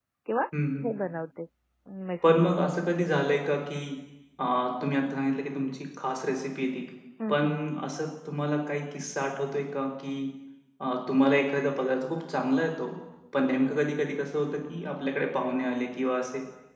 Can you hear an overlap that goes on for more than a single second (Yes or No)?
No